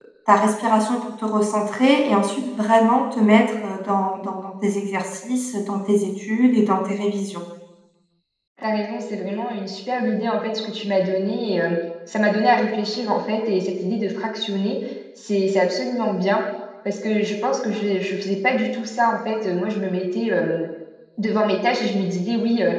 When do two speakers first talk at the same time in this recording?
none

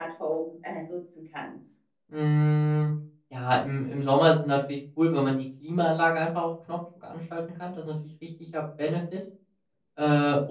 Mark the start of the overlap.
none

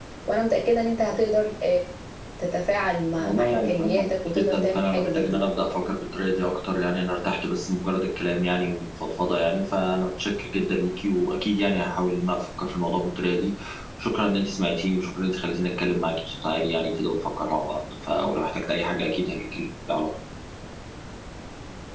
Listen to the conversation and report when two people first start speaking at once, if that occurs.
3.2 s

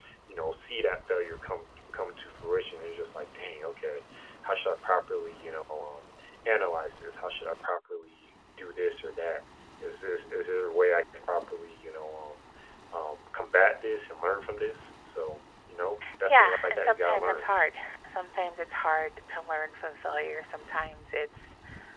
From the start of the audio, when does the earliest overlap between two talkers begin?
16.3 s

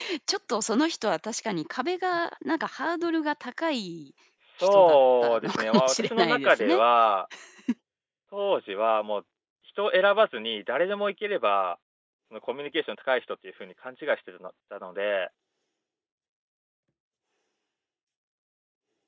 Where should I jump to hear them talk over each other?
4.6 s

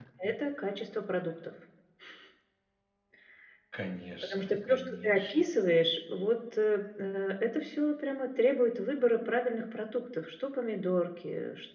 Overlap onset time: 4.2 s

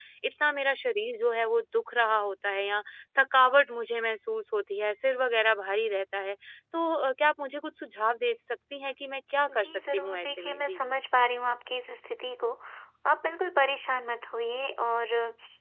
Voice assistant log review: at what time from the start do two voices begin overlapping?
9.5 s

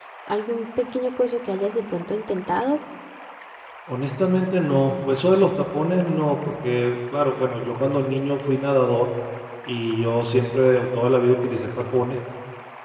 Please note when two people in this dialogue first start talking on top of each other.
none

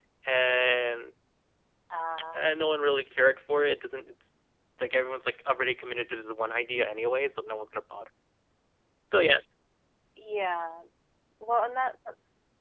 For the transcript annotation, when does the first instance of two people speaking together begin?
none

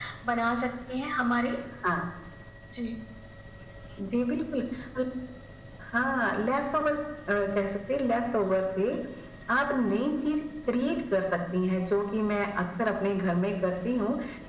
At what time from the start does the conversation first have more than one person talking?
none

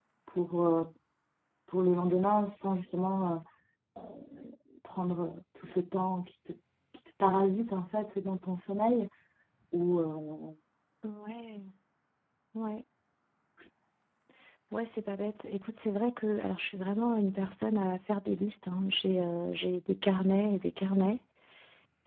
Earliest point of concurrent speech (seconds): none

